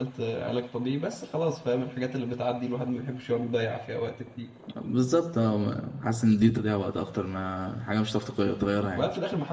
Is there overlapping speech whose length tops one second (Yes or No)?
No